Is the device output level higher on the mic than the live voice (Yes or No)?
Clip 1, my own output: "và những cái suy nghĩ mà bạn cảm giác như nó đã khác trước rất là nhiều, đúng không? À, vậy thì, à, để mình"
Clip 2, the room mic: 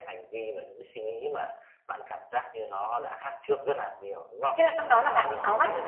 No